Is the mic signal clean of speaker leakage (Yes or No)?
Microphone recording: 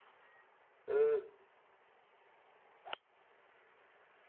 Yes